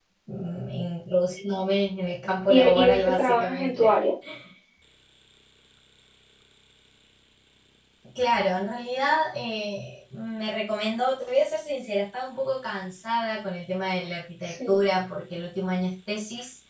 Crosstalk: present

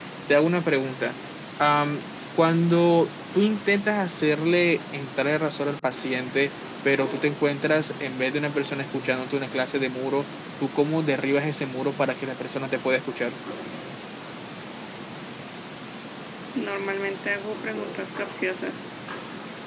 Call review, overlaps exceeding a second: none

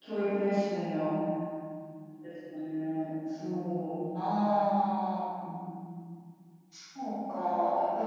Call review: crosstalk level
none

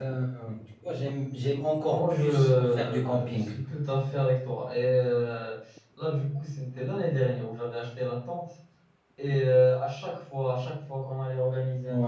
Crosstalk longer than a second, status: present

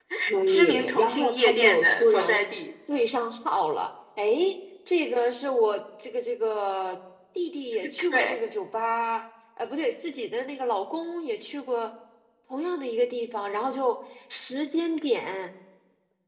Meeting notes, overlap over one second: present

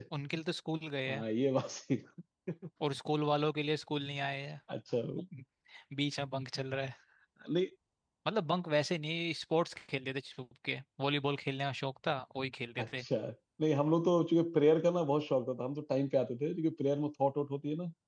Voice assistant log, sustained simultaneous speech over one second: none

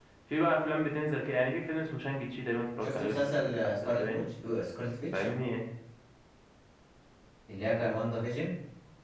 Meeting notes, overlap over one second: present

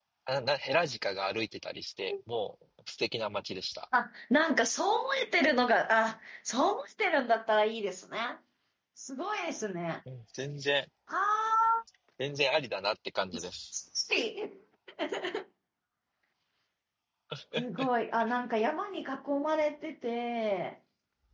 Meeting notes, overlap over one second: none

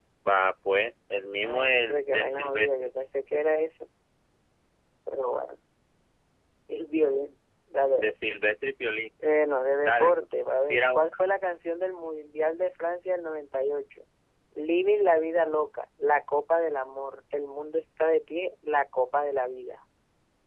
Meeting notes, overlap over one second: present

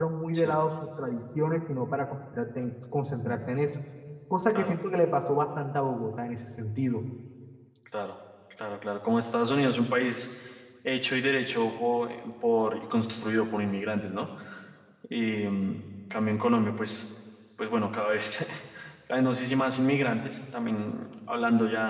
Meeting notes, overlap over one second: none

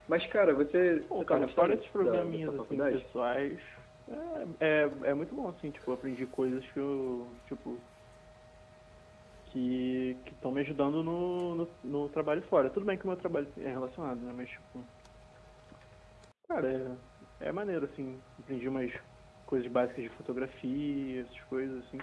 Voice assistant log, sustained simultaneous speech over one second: present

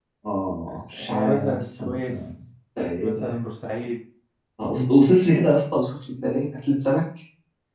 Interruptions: present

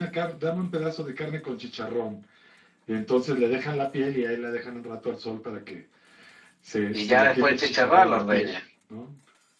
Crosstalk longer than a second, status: present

